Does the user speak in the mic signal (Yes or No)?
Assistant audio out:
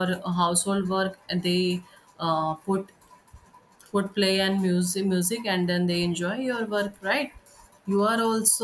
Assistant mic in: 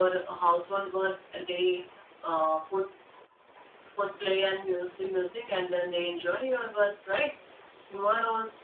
No